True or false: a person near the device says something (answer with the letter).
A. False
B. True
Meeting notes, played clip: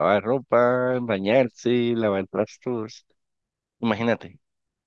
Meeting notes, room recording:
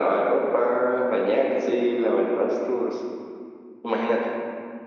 A